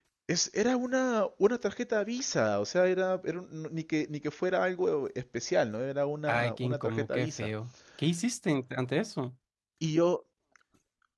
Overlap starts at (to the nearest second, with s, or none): 6 s